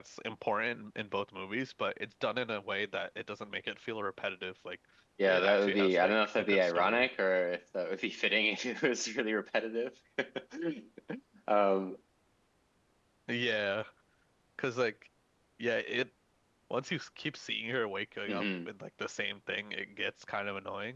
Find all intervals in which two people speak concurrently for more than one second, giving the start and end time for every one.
5.3-7.1

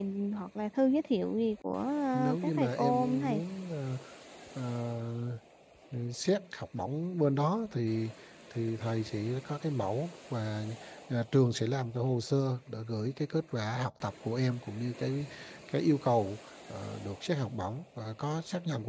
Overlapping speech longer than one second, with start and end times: 2.1-3.4

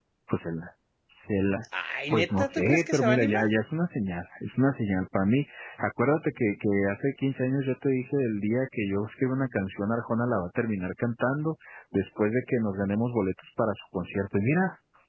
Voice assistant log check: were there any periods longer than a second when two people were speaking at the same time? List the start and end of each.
2.1-3.5

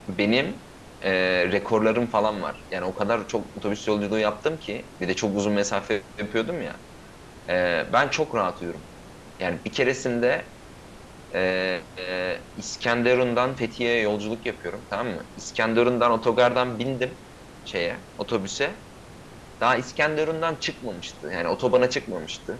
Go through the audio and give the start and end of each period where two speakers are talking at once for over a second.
none

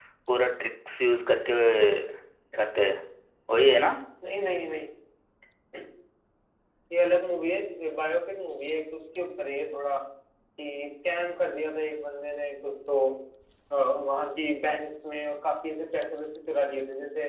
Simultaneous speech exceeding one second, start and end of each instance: none

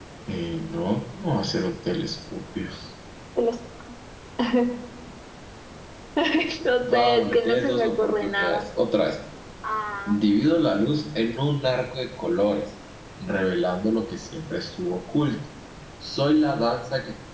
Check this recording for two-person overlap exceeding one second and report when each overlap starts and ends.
6.9-8.6

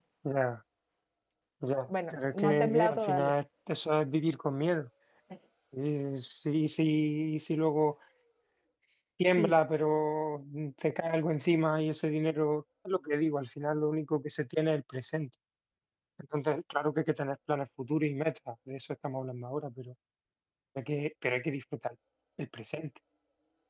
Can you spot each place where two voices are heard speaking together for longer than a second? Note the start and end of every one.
2.1-3.3

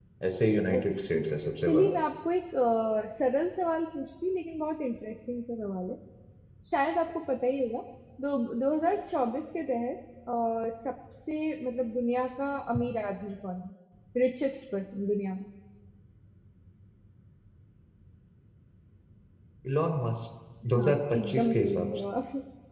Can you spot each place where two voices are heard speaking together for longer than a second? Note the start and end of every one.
20.8-22.1

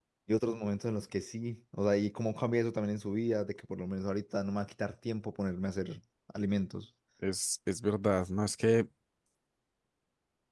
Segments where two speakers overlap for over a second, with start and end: none

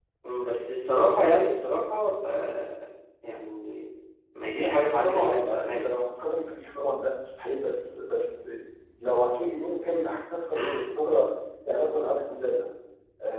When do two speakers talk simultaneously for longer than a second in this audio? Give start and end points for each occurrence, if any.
4.5-6.0

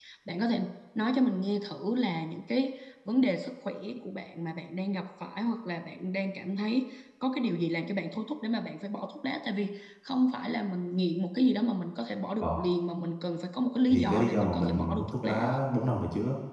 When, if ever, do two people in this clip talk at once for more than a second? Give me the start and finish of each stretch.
13.9-15.5

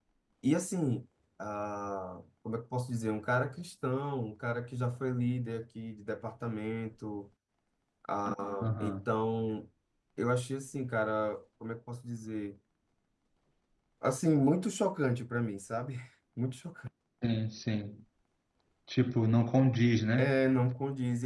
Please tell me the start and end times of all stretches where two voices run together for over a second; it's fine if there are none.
none

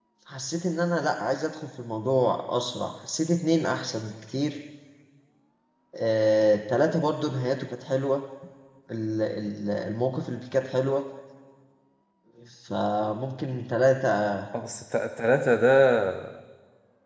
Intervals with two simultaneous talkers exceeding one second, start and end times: none

